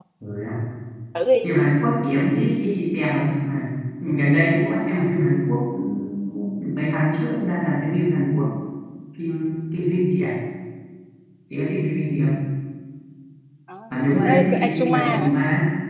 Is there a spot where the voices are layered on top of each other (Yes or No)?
Yes